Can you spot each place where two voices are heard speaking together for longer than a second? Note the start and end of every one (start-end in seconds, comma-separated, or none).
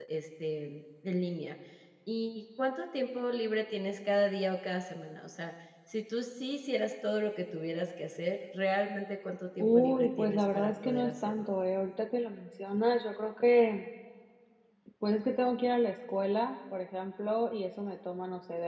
9.6-11.5